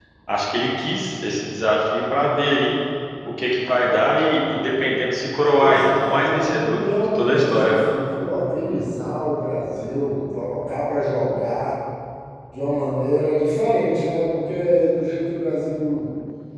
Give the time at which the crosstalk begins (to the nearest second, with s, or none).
6 s